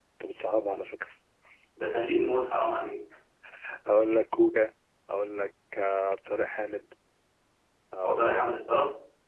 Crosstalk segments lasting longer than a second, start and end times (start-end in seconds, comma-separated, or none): none